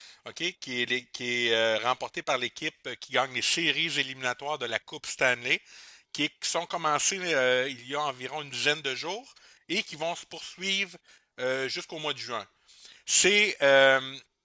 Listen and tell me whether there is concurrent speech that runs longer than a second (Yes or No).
No